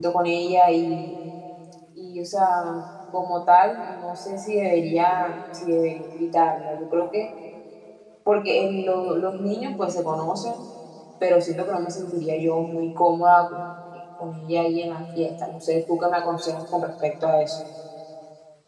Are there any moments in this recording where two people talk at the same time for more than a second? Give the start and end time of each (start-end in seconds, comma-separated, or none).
none